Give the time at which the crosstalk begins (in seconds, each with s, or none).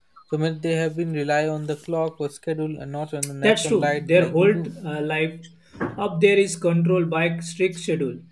3.4 s